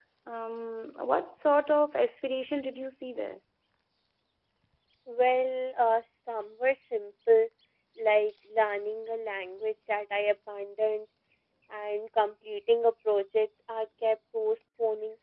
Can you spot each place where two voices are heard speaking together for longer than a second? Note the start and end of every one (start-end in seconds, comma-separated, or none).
none